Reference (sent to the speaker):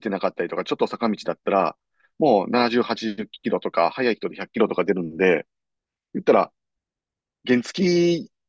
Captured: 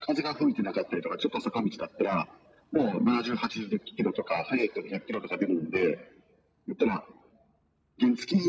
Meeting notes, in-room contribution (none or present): none